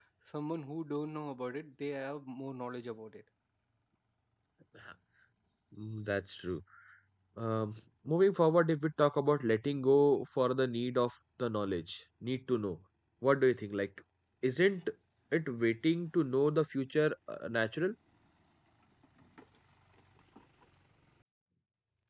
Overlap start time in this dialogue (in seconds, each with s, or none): none